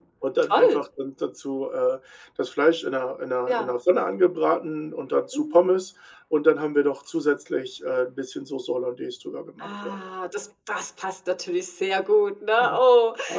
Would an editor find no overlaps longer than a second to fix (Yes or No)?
Yes